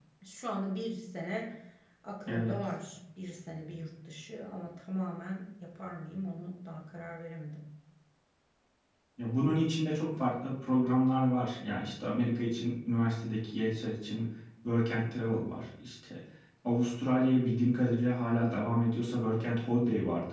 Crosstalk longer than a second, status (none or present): none